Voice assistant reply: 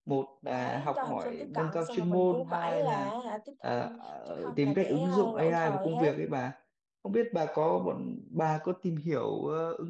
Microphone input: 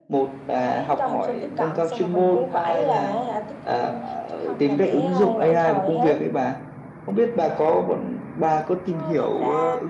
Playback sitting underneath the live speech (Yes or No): No